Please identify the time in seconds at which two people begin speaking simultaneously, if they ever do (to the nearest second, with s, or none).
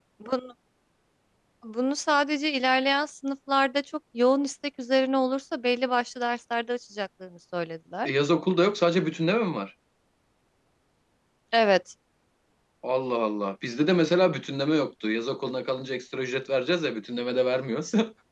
none